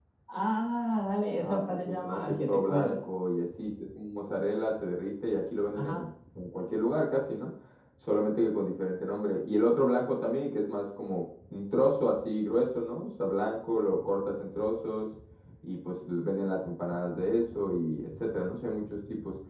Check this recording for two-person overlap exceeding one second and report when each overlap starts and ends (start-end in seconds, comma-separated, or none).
1.4-3.0